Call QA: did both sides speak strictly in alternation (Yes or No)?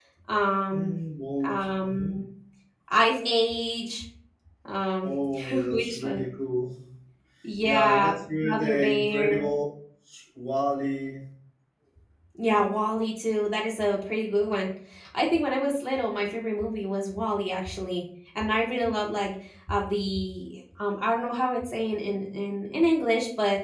No